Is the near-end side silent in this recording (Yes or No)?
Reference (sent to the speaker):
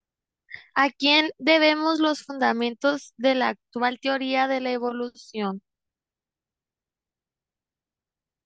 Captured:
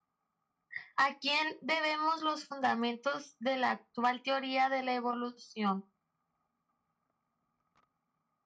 Yes